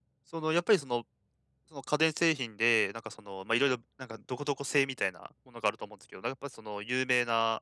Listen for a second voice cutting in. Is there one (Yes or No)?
No